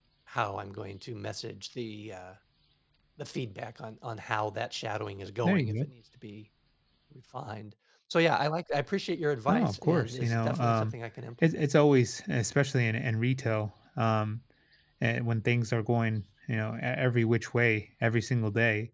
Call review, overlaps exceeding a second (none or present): present